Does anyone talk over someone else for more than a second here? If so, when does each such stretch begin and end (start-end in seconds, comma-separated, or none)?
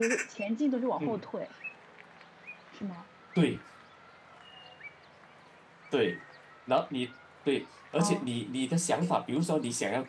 none